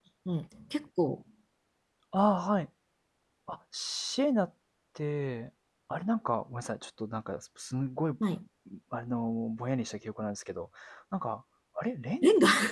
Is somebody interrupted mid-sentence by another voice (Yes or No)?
No